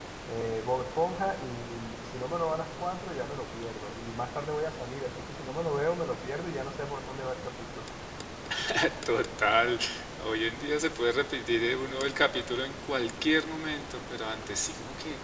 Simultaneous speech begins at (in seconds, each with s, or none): none